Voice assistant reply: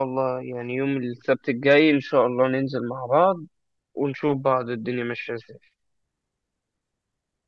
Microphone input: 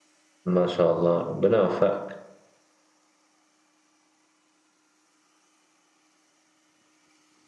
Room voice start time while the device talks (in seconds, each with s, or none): 0.5 s